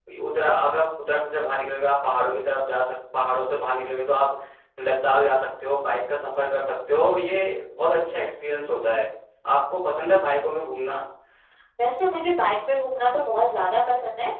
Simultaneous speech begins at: none

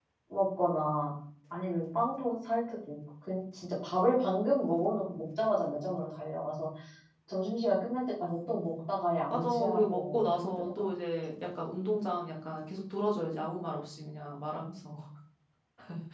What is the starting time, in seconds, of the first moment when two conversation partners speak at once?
9.3 s

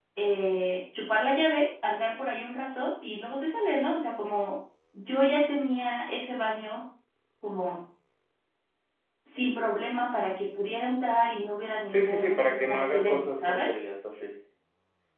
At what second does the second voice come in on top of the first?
11.9 s

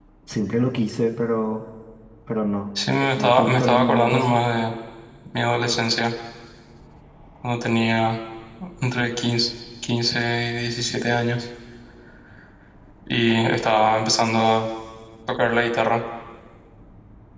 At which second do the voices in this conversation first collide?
3.2 s

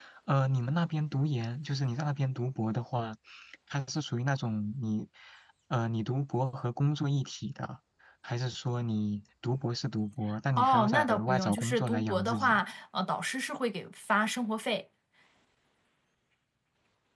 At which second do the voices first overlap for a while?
10.6 s

